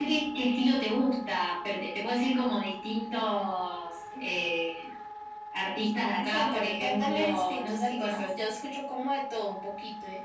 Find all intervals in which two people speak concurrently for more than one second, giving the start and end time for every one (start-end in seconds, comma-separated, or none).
6.3-8.3